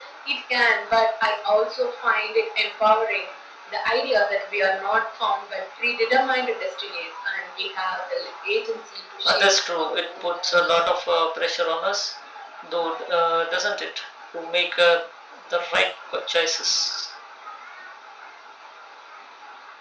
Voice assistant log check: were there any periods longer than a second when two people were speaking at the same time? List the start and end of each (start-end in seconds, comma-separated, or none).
9.2-10.5